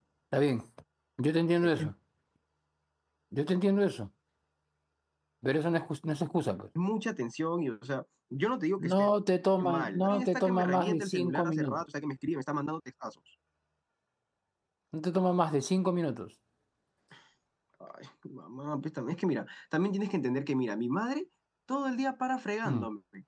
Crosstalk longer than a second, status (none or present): present